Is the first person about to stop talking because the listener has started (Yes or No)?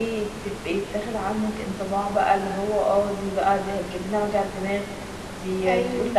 No